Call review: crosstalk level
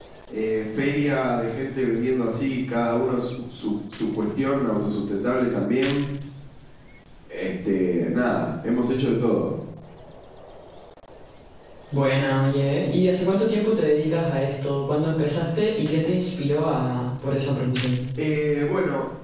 none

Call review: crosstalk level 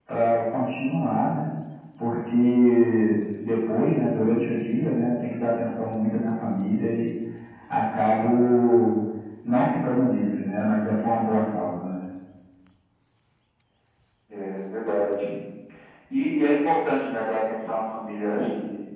none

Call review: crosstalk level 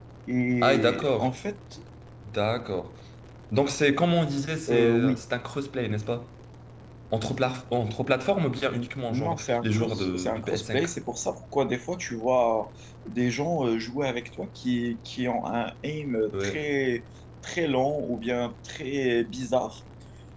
present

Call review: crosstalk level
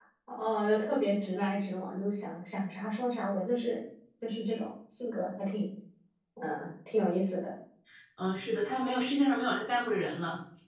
none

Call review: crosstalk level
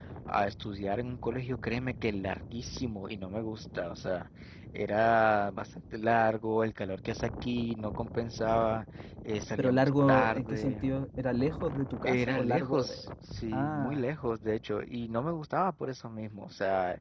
present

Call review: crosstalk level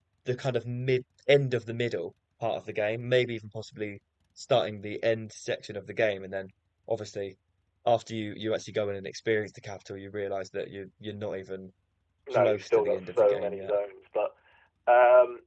present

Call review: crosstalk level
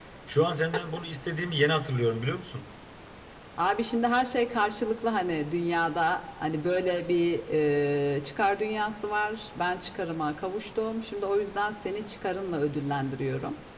none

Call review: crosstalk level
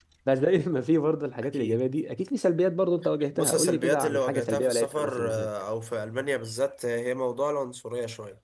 present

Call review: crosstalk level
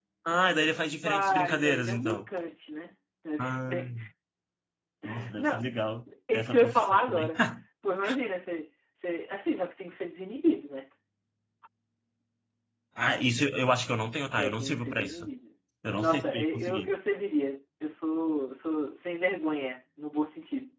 present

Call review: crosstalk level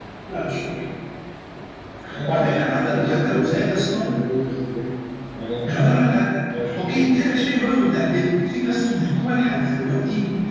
present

